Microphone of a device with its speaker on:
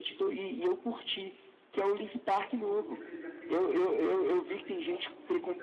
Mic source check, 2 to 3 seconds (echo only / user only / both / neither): both